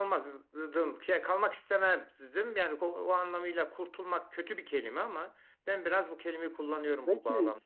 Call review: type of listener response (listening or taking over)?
taking over